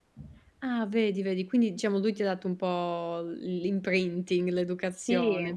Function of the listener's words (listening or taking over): taking over